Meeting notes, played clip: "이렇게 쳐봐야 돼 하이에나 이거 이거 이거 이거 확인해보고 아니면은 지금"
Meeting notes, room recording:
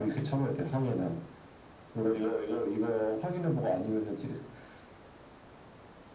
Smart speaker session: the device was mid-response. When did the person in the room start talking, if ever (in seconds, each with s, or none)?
none